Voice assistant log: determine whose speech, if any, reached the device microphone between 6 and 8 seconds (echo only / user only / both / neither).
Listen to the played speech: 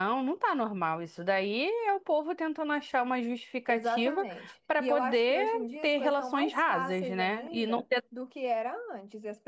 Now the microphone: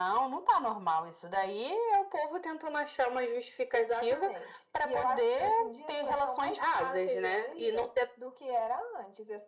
echo only